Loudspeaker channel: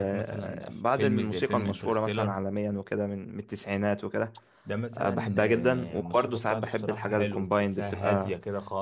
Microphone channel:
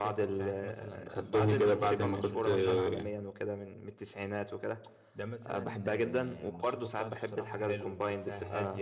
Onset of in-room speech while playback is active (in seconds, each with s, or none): 1.1 s